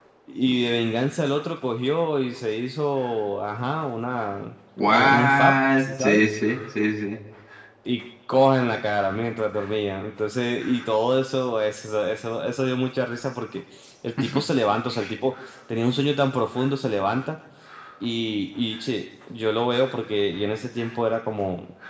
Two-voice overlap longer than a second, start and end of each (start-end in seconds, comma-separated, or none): 4.9-6.3